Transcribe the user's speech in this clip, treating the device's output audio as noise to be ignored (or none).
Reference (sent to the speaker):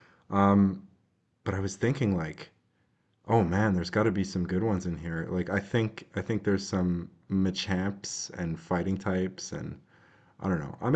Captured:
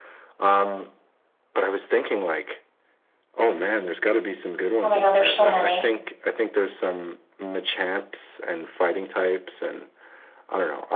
Oh my God, there's so many.